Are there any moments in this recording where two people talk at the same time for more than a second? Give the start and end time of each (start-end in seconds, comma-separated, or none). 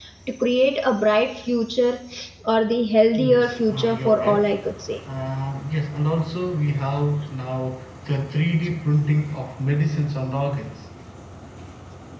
3.2-4.5